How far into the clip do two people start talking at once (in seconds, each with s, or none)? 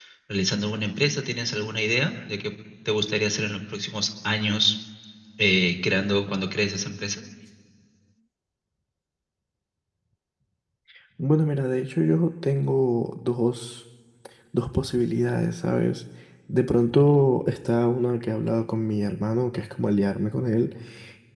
none